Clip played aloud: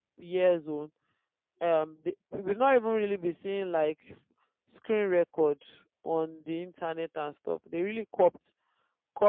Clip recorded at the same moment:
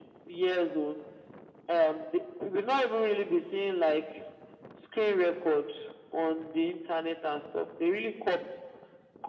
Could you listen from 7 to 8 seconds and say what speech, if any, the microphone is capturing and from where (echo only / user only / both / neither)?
echo only